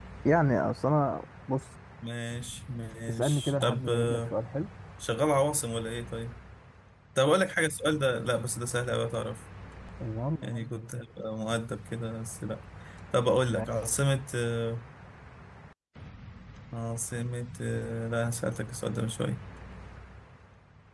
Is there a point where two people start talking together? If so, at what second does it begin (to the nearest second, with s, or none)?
3 s